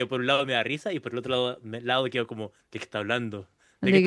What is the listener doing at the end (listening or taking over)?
taking over